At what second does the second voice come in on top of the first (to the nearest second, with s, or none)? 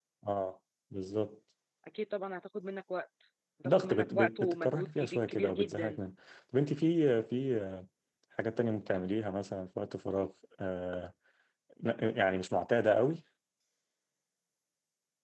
4 s